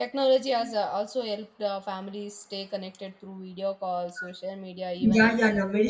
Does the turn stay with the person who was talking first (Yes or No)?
No